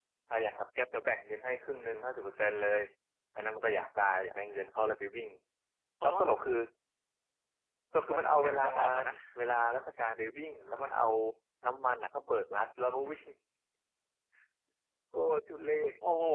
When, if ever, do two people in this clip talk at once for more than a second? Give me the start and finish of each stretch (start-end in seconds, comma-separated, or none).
7.9-9.1